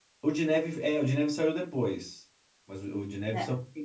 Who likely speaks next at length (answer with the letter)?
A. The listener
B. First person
B